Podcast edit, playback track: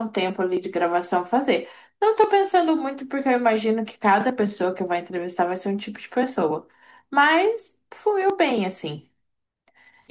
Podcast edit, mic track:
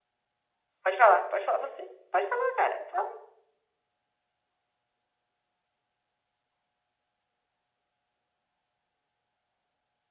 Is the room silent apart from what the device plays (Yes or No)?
No